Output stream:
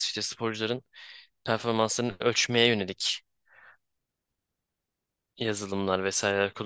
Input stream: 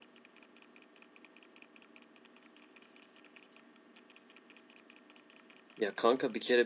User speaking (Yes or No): Yes